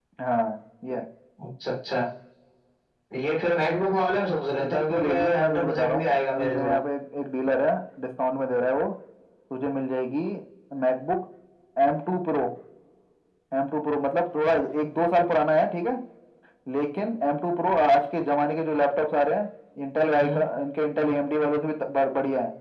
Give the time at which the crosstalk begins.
4.6 s

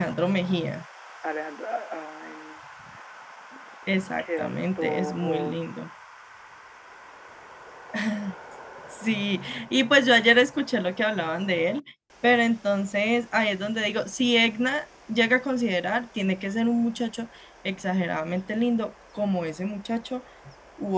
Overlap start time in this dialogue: 4.2 s

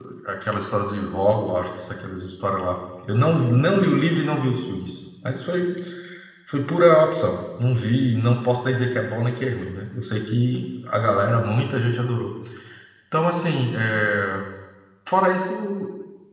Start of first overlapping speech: none

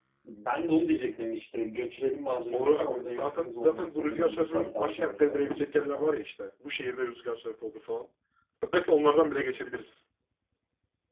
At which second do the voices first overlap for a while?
2.5 s

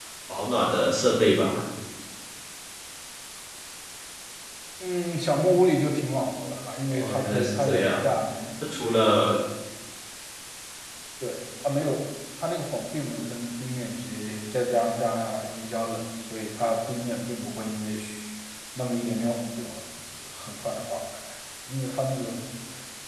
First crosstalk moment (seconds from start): 6.9 s

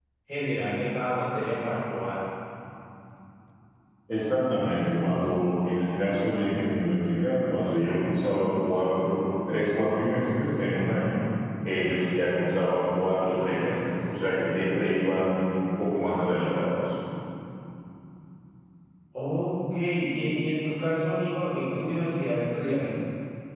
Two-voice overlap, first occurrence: none

